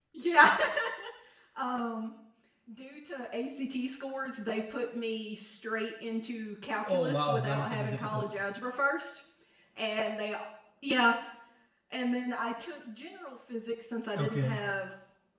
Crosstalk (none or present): present